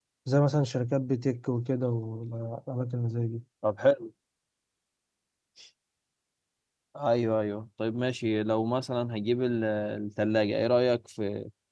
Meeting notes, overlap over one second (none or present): none